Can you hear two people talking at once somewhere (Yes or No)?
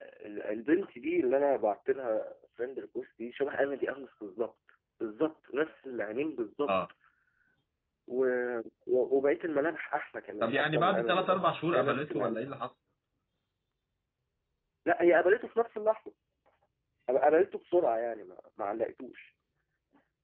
Yes